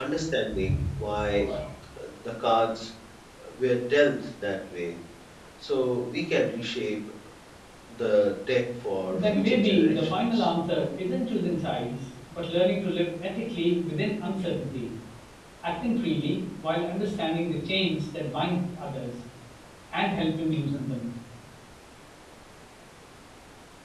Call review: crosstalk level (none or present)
present